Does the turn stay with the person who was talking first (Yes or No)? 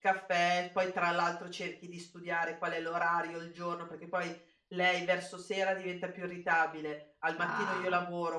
Yes